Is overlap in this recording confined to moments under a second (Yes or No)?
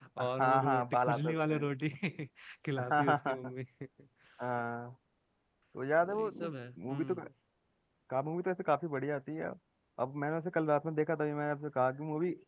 No